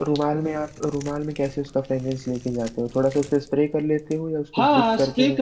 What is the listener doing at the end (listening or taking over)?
taking over